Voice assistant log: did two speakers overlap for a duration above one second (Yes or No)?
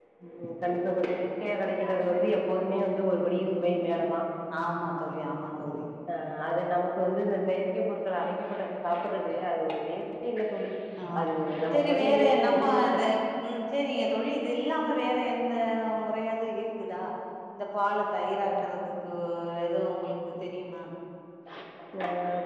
Yes